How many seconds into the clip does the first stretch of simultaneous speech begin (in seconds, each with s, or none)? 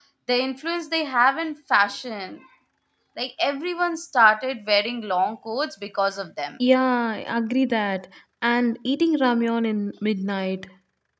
none